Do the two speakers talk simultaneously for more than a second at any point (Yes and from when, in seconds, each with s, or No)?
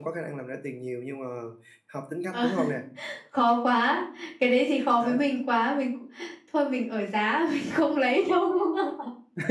No